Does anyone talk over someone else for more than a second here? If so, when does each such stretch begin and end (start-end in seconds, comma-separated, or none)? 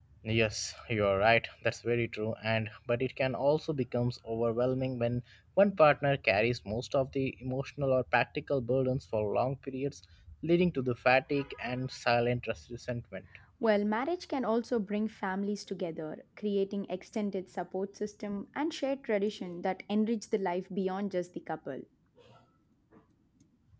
none